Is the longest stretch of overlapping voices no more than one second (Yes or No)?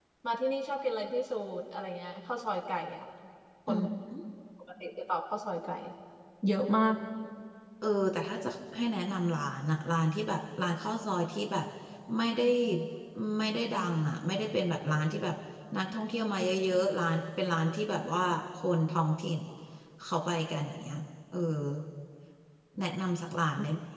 Yes